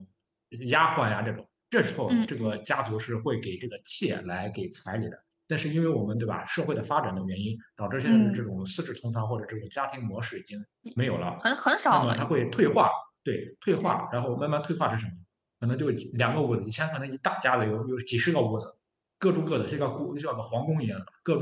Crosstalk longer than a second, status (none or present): none